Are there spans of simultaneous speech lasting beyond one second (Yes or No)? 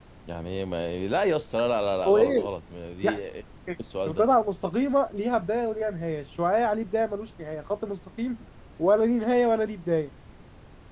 No